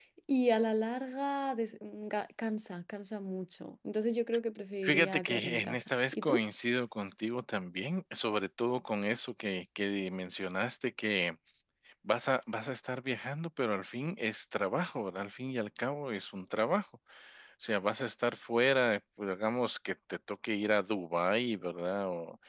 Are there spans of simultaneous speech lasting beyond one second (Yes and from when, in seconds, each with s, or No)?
Yes, from 4.8 s